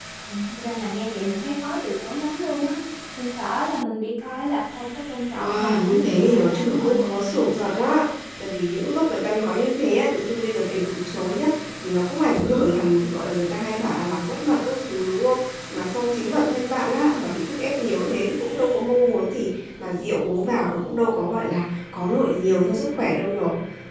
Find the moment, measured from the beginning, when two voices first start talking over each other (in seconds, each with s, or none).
5.4 s